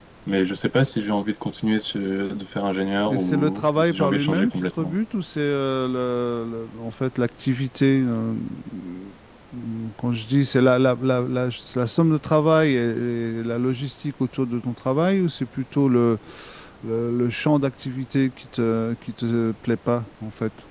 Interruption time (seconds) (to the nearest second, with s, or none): 3 s